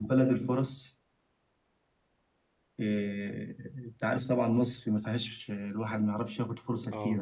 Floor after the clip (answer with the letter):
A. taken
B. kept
B